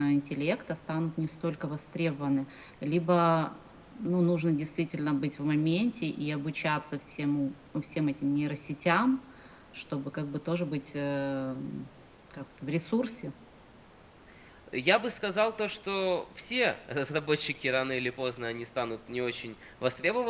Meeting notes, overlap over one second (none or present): none